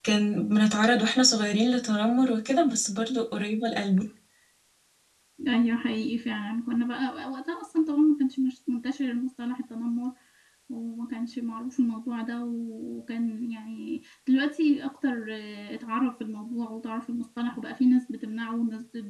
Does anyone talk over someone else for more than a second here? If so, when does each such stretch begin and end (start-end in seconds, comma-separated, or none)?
none